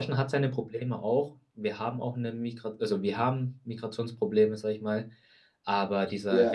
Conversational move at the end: listening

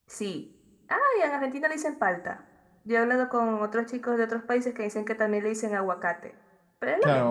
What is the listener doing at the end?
taking over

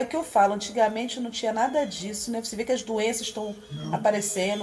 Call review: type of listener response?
listening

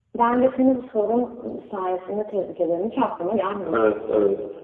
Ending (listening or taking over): taking over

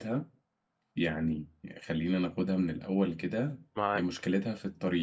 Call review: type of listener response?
listening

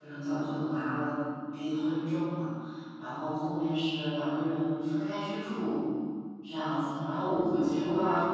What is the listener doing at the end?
listening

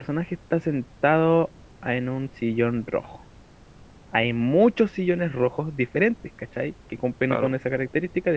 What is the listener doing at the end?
listening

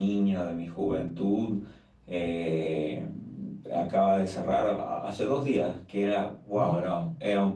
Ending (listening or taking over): listening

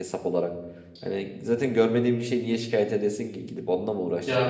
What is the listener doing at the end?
taking over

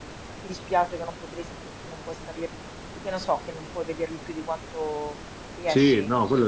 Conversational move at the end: taking over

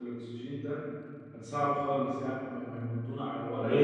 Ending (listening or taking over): taking over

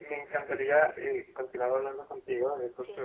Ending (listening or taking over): listening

